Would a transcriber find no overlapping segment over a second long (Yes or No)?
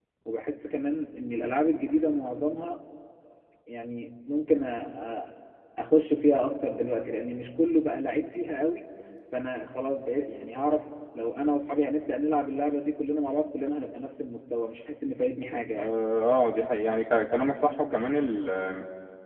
Yes